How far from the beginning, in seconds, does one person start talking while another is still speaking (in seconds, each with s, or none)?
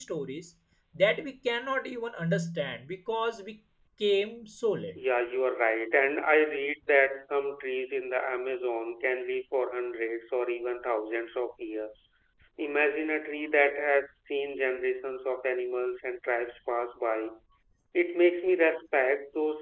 none